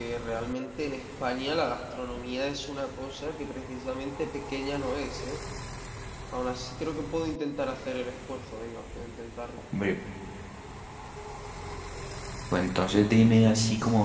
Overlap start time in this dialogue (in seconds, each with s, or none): none